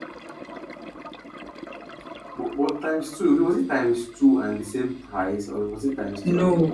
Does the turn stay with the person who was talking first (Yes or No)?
No